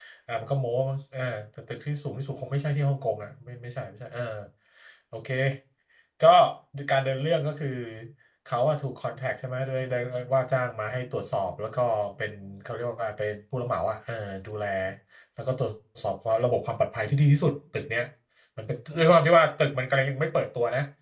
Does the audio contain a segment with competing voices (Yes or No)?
No